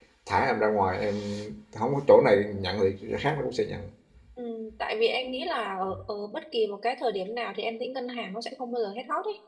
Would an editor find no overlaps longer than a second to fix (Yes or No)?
Yes